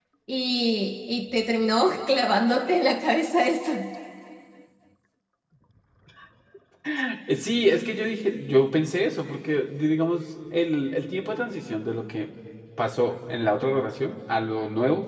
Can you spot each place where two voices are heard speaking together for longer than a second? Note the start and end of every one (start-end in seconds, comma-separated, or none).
none